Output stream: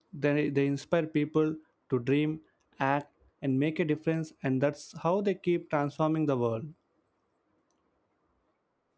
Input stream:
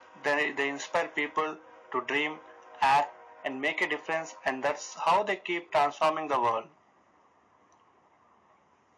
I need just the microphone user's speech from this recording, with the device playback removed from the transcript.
none

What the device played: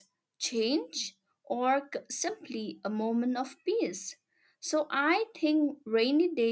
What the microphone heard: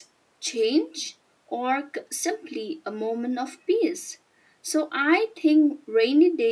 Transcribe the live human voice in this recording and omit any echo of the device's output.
none

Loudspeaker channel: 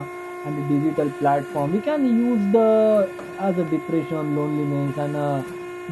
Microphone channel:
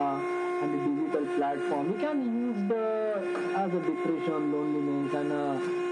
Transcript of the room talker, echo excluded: none

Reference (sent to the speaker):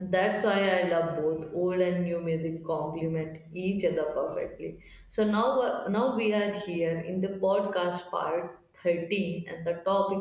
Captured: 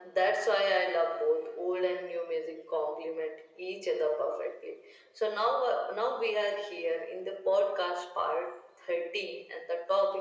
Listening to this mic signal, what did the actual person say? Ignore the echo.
none

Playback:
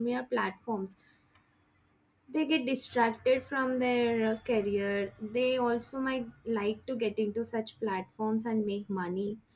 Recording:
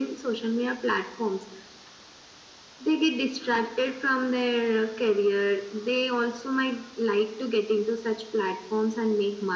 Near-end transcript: none

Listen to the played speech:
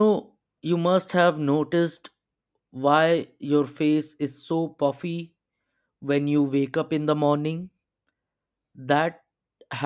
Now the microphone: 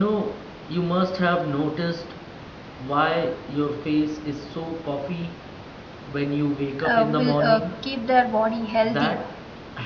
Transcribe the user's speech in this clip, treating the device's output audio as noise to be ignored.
uh, will uh, keep their body healthy

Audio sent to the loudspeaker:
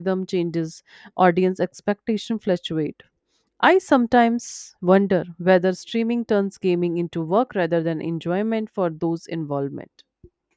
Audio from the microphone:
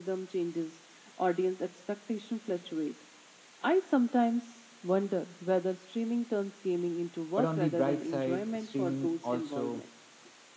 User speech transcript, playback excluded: But on the bright side, streaming also

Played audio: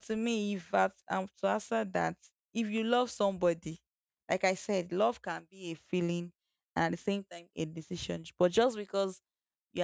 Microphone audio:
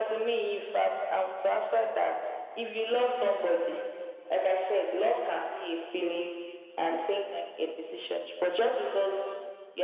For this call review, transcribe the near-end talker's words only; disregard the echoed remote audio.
none

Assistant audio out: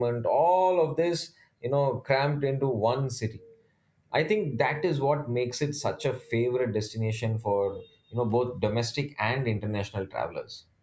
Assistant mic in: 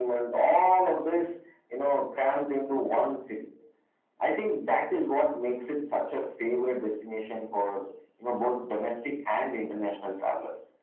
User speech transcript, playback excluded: none

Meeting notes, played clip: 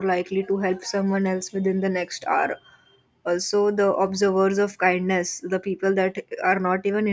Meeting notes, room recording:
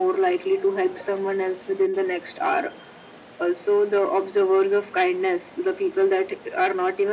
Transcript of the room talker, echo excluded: none

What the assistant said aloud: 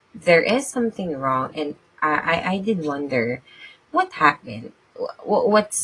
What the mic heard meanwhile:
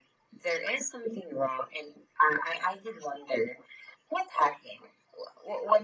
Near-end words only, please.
none

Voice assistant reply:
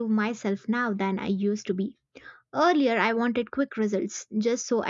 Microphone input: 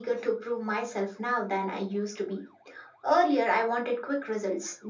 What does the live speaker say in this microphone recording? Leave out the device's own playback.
none

